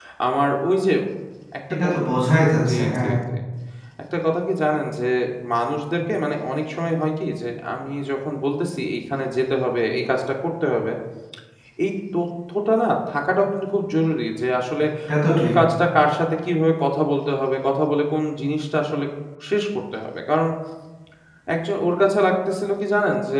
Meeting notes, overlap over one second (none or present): none